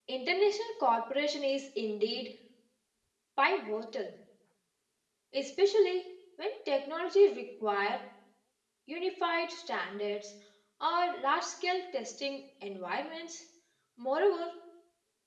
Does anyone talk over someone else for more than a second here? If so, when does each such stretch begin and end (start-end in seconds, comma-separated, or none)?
none